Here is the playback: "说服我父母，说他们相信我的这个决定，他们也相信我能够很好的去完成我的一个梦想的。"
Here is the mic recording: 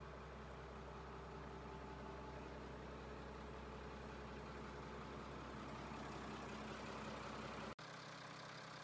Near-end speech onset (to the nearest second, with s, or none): none